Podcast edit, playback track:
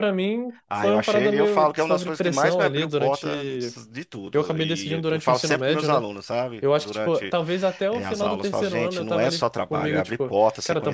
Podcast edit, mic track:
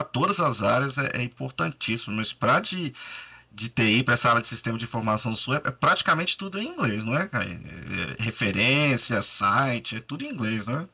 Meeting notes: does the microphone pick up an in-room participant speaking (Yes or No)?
Yes